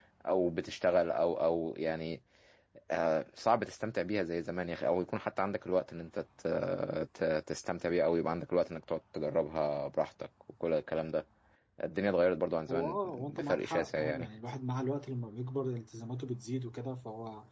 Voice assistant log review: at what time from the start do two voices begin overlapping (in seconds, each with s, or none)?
12.7 s